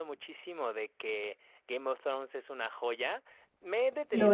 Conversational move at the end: listening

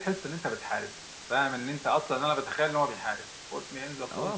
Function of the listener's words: taking over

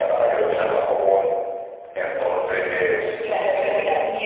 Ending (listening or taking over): taking over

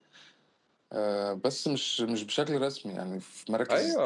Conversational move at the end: taking over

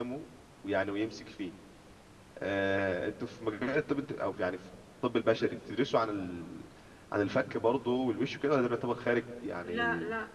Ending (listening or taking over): taking over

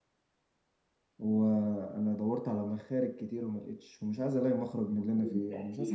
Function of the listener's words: taking over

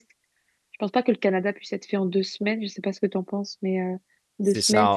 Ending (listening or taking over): taking over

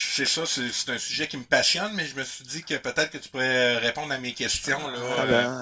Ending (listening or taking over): taking over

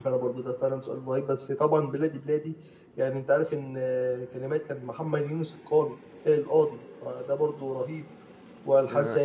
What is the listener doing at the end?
listening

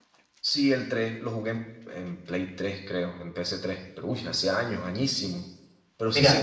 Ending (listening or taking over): listening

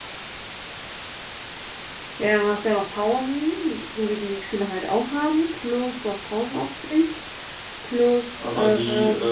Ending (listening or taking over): taking over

